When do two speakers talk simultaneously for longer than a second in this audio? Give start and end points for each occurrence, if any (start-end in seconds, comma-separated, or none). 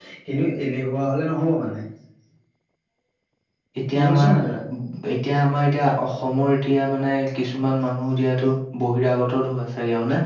none